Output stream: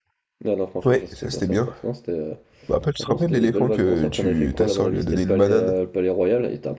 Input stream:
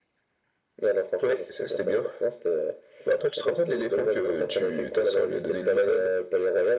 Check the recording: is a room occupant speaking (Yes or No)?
No